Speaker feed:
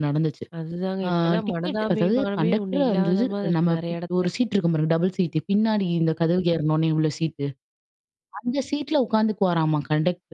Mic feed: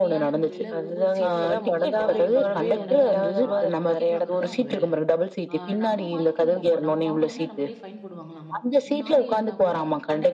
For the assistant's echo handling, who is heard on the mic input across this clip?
both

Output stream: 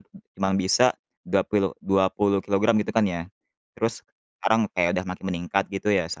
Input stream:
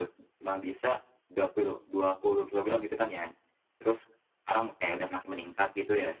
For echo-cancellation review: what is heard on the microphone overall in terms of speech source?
echo only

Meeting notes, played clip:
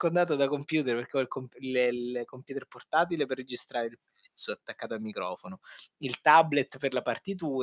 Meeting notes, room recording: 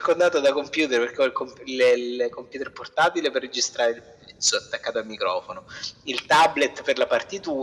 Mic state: echo only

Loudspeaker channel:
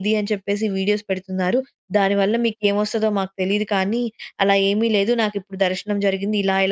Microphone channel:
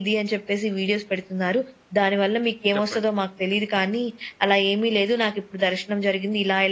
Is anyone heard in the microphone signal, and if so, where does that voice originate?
both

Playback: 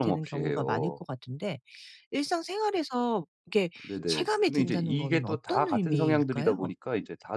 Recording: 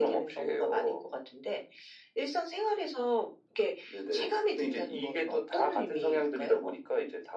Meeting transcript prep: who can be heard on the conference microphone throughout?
echo only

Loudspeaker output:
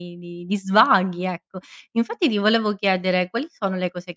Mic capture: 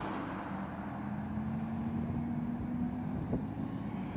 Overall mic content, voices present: neither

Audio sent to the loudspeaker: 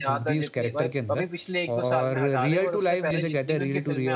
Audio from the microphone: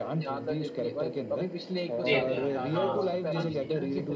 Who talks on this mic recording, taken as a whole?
both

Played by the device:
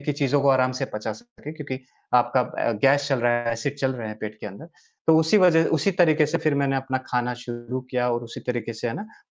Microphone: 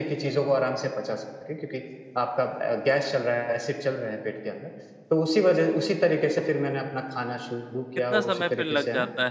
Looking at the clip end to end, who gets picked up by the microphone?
both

